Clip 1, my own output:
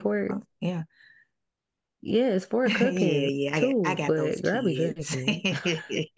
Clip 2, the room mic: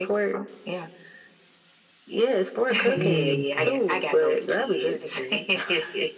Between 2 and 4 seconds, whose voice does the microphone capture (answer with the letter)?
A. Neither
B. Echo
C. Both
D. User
C